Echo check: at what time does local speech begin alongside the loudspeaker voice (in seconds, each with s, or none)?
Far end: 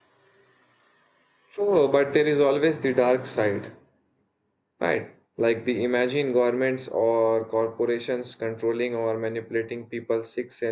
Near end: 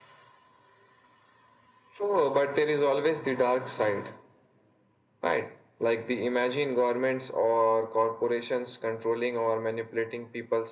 none